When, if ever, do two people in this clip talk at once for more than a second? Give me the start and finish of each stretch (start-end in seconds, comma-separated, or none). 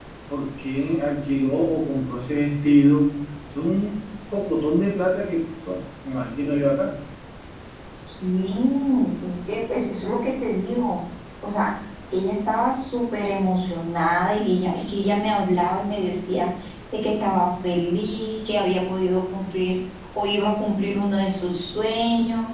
none